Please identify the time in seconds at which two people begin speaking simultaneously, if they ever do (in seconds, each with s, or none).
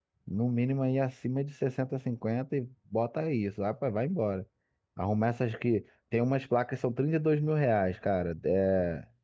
none